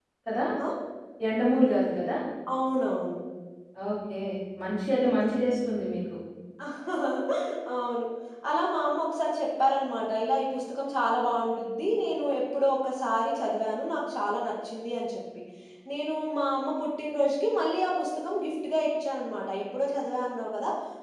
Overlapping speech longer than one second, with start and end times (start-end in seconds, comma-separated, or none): none